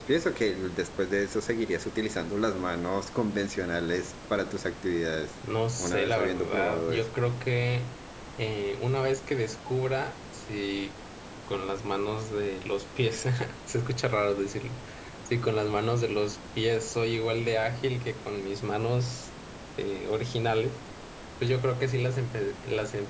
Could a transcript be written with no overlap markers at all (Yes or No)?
No